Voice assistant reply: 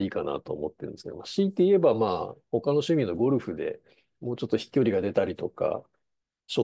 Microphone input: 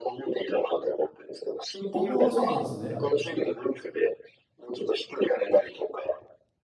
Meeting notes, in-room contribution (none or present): present